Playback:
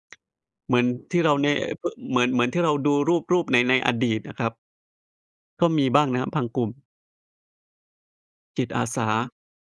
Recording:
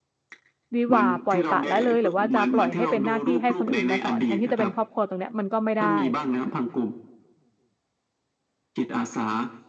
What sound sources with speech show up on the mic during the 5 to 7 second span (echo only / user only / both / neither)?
both